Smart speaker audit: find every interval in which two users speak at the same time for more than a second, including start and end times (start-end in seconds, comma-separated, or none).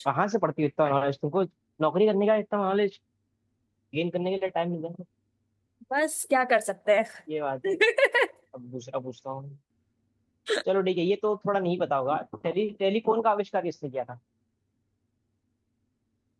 none